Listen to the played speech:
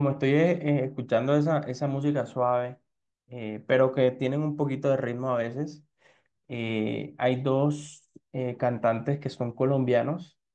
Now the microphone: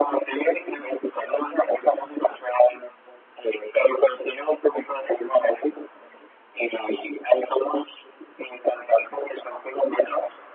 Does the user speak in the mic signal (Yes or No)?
No